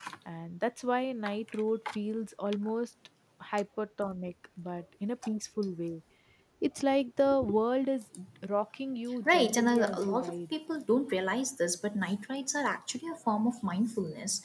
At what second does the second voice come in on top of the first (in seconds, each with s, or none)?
9.2 s